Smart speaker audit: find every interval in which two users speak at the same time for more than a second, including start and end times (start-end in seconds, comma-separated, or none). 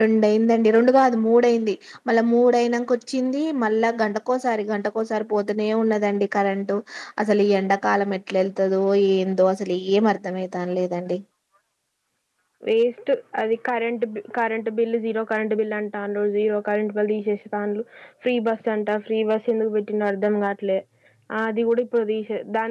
none